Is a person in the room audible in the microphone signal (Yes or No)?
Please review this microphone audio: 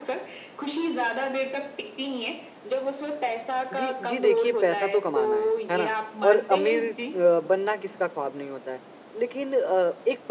Yes